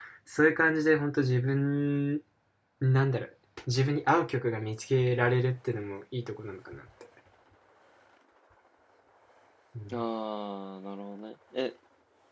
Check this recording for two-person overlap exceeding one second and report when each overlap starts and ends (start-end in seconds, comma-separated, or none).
none